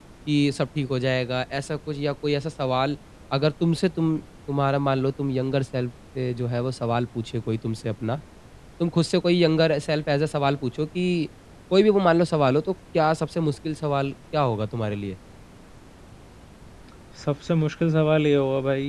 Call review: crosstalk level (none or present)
none